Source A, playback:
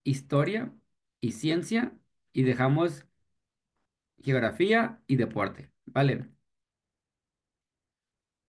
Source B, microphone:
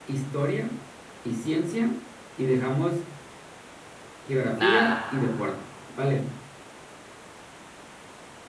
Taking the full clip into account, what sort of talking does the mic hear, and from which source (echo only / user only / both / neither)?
both